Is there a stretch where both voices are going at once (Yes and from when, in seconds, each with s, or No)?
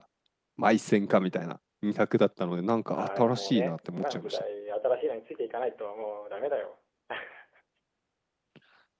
Yes, from 3.0 s